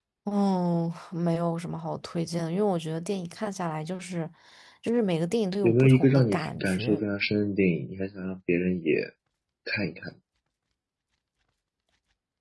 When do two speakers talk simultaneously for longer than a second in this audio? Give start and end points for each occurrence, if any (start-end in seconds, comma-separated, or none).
5.6-7.0